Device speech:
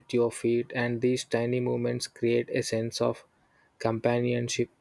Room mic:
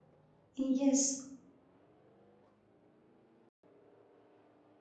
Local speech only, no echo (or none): Yes,